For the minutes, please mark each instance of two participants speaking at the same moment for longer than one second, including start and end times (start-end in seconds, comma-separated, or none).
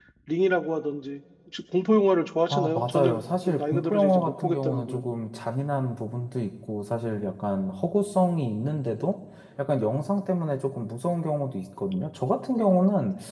2.5-5.0